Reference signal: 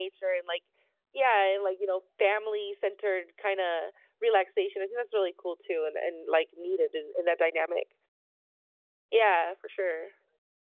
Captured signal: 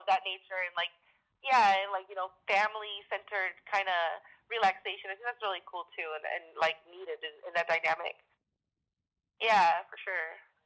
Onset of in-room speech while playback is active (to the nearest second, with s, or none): none